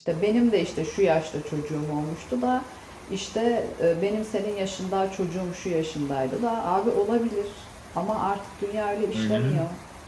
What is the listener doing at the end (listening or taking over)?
taking over